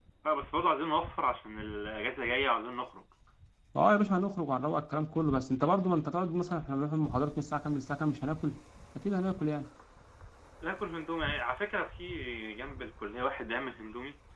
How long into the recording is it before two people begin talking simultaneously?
none

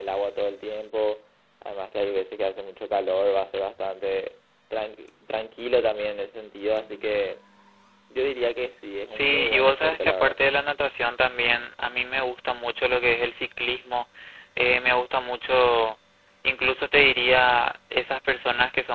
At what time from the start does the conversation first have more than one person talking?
9.1 s

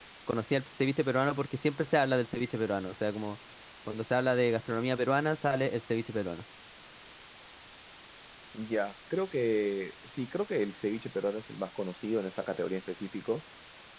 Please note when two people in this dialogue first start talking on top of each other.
none

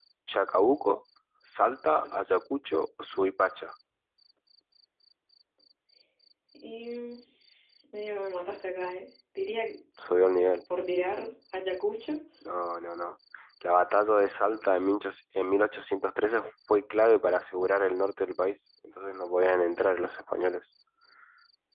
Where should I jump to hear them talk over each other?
none

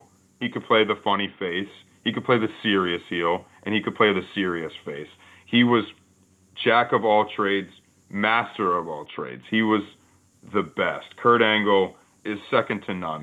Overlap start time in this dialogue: none

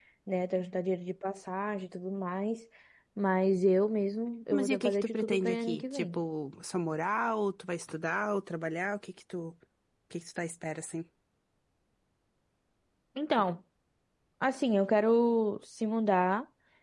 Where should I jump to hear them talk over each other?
4.5 s

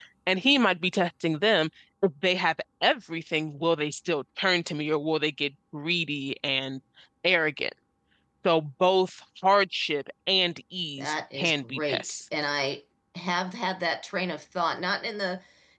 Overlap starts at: 11.0 s

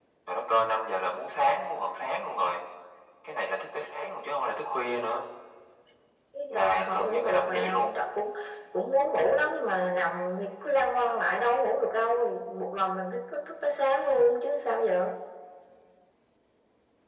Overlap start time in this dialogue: 6.5 s

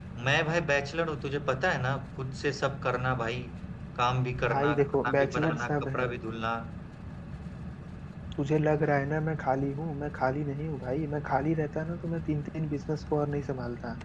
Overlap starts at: 4.5 s

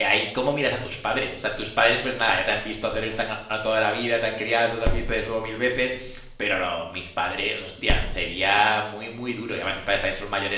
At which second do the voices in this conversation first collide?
none

